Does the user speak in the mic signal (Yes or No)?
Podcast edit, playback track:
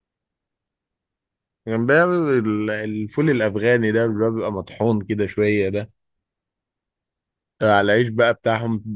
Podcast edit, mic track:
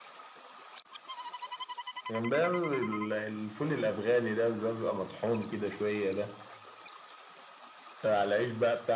No